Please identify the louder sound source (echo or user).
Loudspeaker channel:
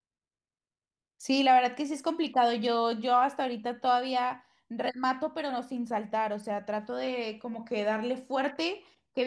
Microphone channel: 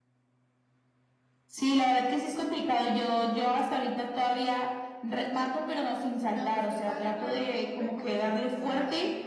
echo